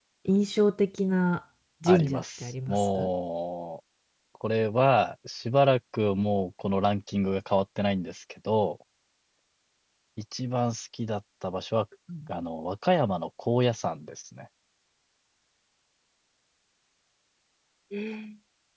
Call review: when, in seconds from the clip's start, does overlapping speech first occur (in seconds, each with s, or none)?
1.9 s